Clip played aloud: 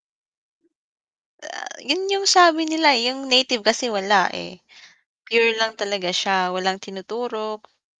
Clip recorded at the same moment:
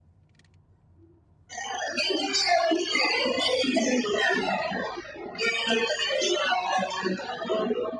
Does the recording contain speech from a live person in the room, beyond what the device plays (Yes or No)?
No